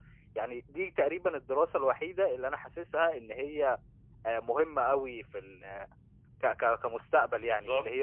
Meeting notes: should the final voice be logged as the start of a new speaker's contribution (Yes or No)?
Yes